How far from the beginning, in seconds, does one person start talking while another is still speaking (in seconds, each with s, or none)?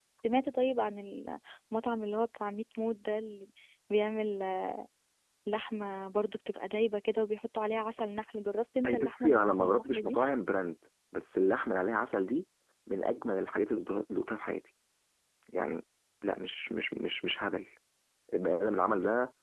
8.8 s